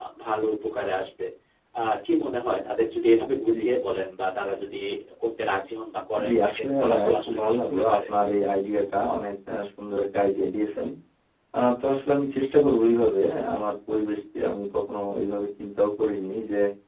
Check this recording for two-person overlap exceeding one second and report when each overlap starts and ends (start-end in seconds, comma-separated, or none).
6.2-8.0